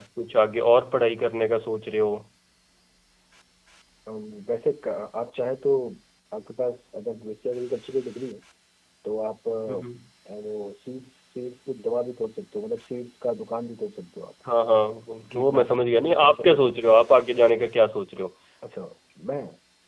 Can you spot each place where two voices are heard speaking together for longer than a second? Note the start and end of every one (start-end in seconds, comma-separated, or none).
15.3-16.7